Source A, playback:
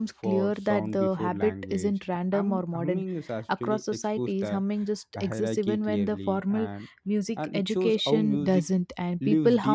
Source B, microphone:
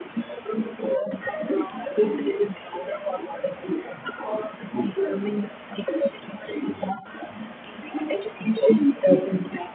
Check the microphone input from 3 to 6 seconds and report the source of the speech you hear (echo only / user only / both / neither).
echo only